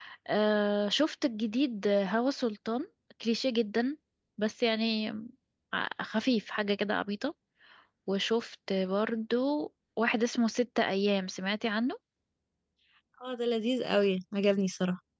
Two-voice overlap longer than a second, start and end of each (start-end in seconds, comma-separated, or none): none